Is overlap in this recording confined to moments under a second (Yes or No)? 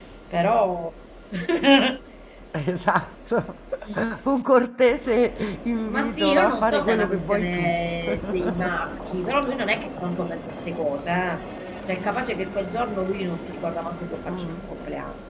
No